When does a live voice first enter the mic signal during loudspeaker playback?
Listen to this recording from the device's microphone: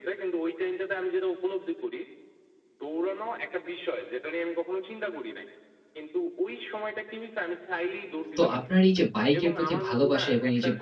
8.4 s

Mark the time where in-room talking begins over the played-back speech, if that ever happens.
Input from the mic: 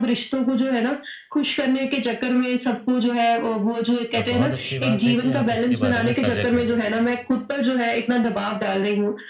4.2 s

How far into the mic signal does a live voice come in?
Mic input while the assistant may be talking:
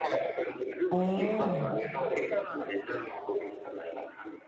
0.9 s

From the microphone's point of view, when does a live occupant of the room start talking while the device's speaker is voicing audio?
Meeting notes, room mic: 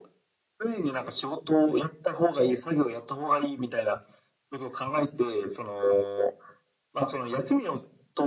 none

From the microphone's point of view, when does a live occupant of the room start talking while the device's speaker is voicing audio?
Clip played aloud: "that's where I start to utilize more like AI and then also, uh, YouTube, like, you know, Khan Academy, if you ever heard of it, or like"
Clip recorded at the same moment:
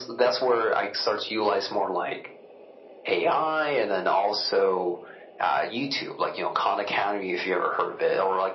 none

